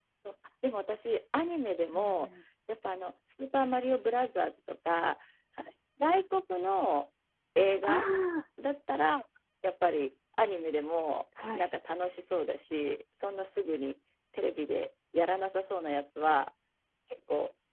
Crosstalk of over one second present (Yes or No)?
No